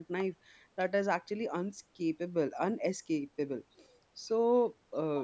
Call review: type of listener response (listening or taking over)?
listening